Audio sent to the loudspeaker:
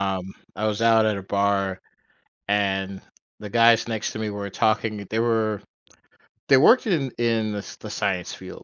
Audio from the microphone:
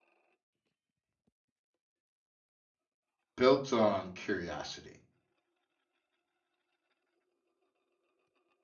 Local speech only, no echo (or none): built on curiosity.